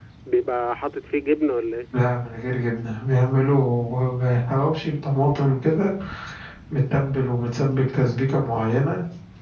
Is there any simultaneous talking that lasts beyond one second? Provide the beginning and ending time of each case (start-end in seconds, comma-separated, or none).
none